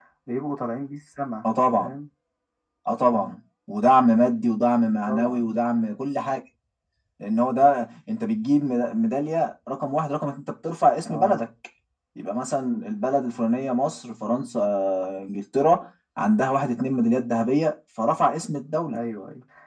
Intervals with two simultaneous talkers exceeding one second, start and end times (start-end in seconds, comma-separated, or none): none